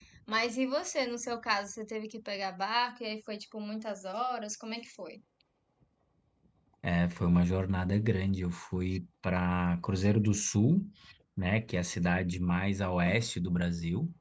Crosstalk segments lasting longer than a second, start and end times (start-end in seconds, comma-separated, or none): none